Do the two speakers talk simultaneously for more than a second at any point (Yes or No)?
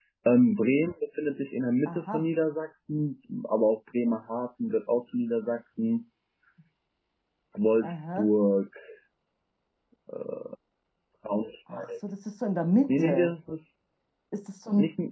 No